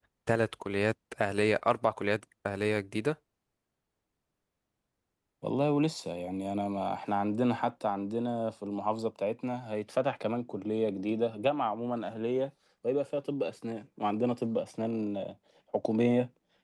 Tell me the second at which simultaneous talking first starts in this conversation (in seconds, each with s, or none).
none